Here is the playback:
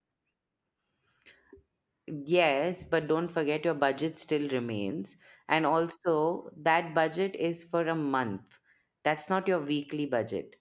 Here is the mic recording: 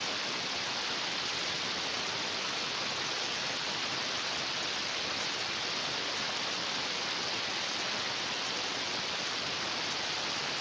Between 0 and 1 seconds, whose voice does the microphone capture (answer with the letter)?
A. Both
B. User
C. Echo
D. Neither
D